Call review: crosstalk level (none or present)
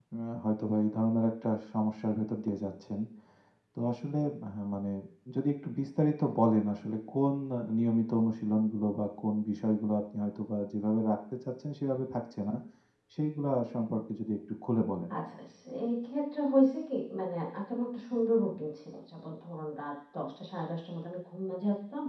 none